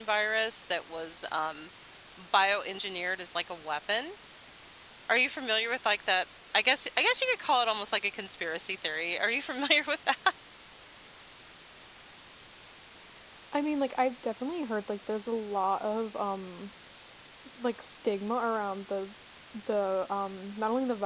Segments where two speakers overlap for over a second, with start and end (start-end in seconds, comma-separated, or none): none